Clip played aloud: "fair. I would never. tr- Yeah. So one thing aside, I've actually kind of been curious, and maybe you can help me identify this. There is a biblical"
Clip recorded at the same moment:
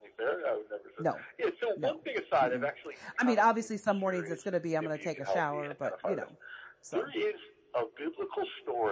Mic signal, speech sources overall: both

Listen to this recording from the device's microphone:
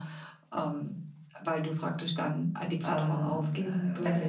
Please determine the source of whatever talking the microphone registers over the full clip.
both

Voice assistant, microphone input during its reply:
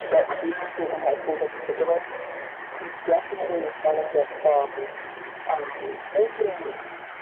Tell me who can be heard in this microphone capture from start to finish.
echo only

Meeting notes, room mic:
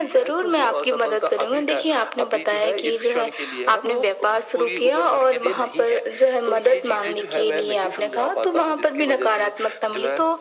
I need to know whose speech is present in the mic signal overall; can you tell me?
echo only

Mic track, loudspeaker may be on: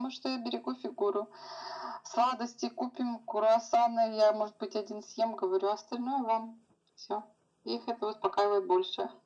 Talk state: echo only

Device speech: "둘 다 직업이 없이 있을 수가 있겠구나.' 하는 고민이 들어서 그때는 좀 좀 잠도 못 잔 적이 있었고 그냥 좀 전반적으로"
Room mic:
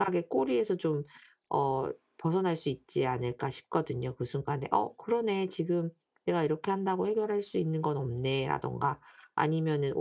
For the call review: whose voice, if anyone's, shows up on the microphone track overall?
user only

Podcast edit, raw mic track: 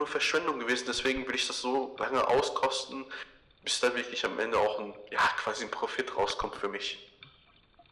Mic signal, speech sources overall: echo only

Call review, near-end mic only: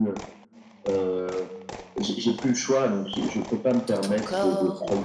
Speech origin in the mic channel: both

